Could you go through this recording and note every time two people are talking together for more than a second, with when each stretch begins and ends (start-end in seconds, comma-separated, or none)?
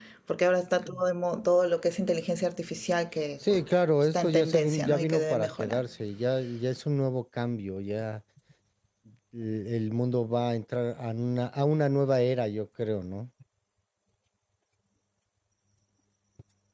4.1-5.8